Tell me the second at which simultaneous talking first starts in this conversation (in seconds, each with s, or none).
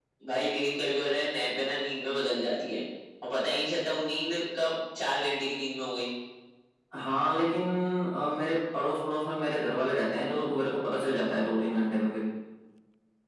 none